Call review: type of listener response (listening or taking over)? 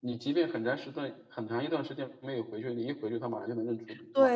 taking over